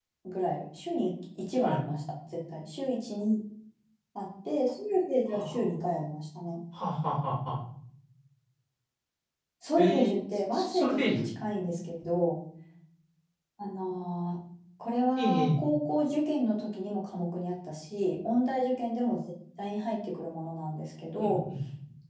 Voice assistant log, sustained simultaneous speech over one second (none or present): present